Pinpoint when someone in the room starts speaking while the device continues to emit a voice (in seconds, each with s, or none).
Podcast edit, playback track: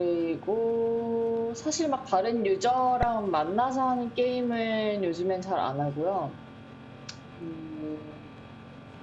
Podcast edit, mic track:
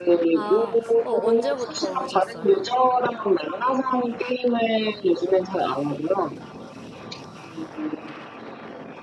0.3 s